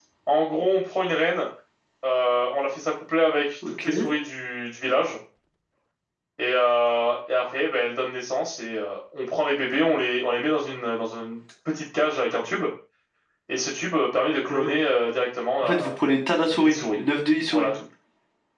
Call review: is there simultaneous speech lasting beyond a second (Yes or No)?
No